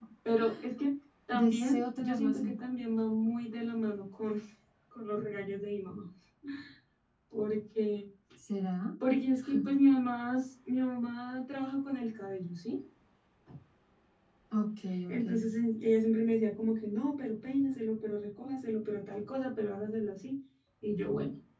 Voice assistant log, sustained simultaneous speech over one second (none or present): present